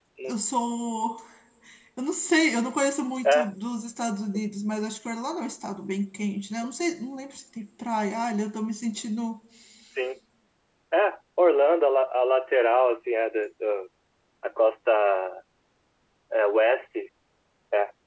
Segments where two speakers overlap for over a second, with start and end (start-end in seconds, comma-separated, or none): none